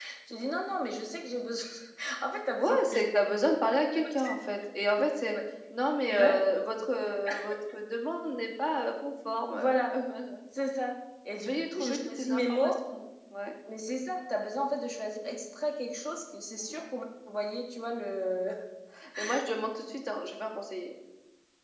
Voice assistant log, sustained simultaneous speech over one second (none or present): present